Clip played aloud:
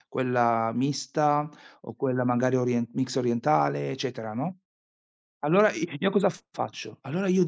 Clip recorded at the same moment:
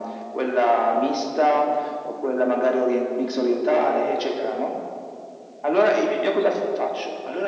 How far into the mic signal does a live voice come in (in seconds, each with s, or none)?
none